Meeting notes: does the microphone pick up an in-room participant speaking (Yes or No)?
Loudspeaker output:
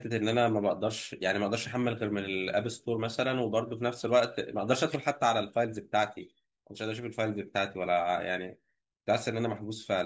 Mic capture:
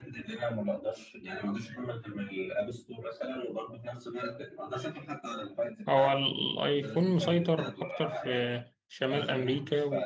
Yes